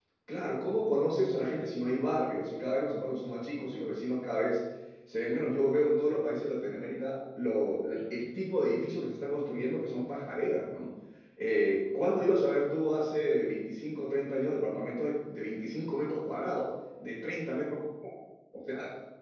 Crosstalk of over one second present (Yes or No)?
No